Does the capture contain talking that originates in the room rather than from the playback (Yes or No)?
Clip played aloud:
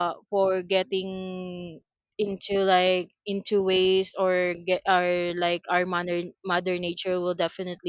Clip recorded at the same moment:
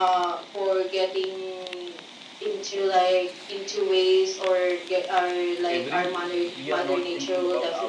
Yes